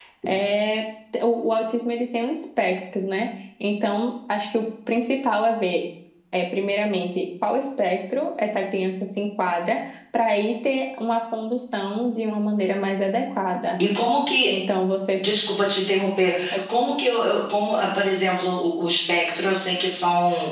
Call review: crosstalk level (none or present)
none